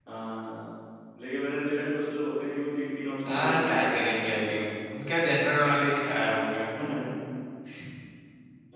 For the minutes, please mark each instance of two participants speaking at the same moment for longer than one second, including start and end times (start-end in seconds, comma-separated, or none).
3.3-4.7